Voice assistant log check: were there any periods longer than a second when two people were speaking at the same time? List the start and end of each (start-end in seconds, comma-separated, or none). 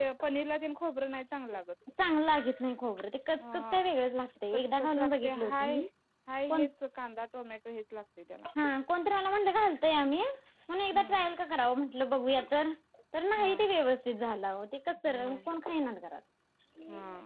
4.5-5.8